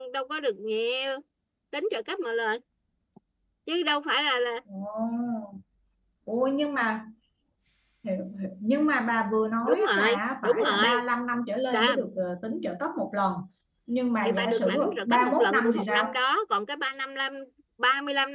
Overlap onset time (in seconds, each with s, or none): 9.7 s